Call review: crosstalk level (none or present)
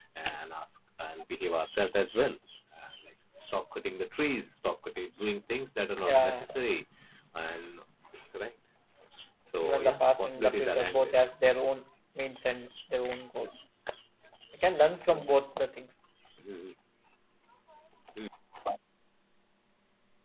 present